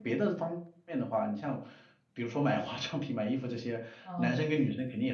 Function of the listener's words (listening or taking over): listening